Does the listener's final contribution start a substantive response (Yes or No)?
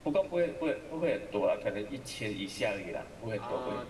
Yes